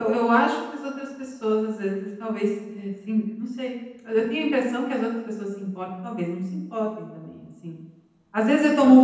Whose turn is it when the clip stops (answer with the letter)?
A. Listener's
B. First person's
B